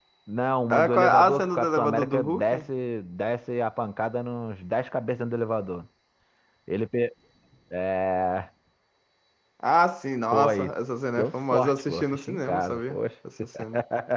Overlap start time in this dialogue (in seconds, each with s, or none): 0.7 s